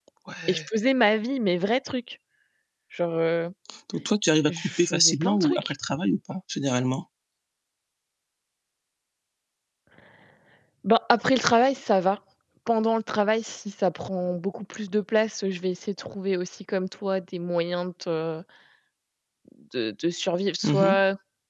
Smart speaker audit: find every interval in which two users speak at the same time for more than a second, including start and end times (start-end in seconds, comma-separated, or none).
4.5-5.7